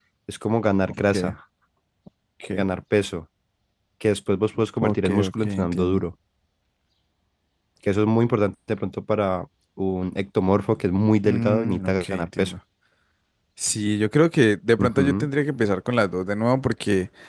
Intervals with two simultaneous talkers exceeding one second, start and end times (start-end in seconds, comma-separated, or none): 4.8-6.0, 11.2-12.6